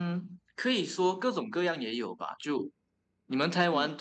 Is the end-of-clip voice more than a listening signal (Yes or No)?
No